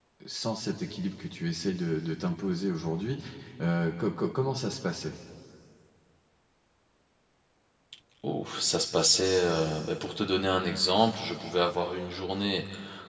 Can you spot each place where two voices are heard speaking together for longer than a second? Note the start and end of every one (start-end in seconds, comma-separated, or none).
none